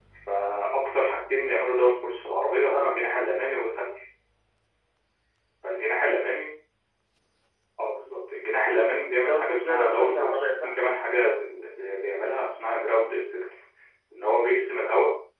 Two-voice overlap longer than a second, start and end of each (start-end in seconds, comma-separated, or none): 9.2-10.8